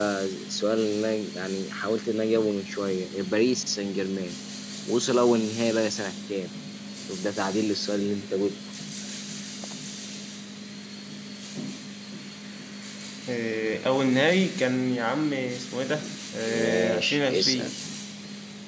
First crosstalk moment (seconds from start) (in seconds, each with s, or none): 16.5 s